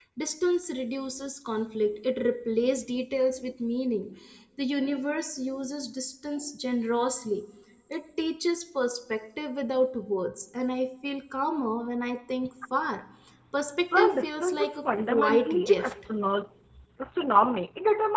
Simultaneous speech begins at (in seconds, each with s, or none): 13.9 s